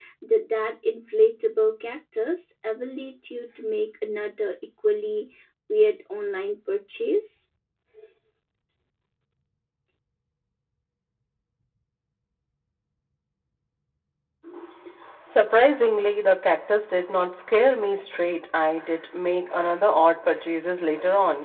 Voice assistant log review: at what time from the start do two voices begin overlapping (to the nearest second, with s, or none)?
none